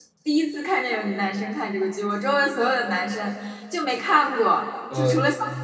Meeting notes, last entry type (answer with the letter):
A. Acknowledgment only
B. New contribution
A